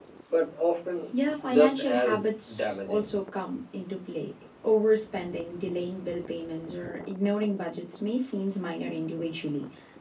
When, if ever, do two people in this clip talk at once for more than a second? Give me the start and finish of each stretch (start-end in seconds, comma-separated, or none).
1.5-3.0